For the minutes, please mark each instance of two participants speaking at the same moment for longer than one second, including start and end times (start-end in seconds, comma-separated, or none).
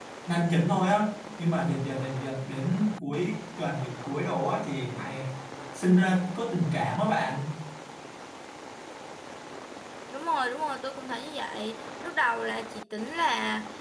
none